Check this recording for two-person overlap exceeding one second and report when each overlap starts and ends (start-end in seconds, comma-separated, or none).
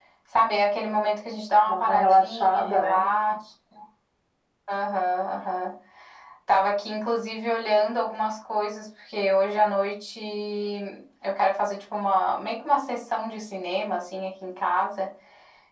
1.6-3.1